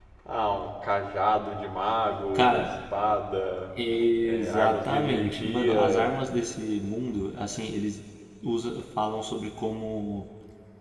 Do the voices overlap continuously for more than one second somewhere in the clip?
Yes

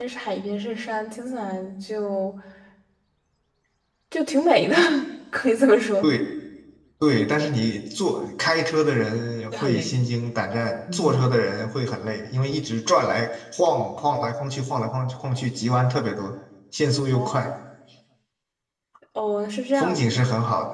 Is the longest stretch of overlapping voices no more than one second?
Yes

